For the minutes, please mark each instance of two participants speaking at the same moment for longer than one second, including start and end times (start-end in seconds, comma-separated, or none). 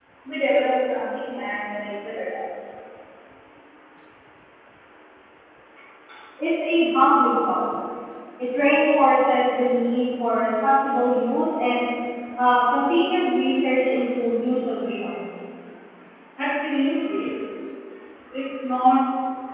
none